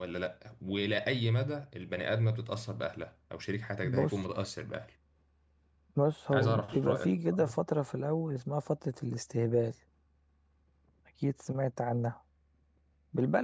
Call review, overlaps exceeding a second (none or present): present